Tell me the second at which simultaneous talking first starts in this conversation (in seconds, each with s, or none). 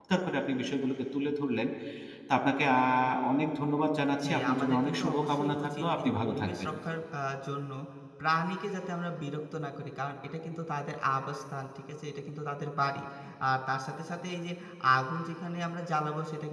4.2 s